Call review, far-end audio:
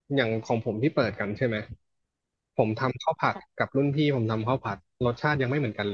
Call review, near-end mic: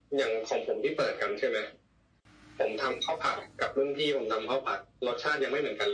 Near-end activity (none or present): none